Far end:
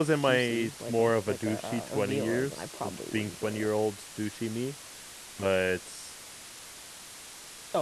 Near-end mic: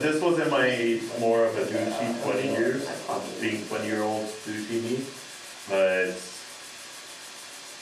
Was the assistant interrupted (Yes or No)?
No